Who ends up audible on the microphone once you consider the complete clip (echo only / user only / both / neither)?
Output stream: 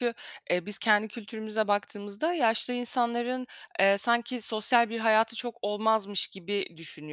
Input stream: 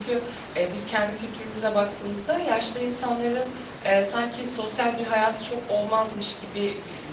echo only